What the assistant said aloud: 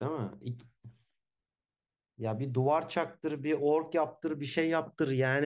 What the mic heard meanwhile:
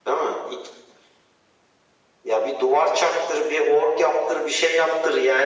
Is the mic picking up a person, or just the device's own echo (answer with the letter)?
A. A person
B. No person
B